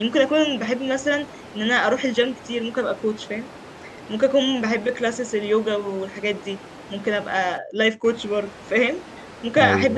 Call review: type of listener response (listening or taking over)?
listening